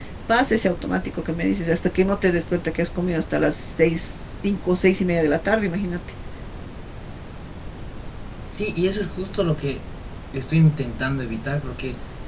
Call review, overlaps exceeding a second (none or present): none